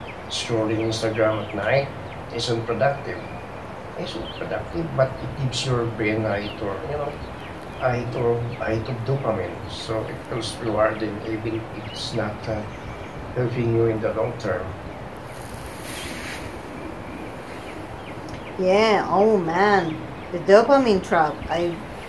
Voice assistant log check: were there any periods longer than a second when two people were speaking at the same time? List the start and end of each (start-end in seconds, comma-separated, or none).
none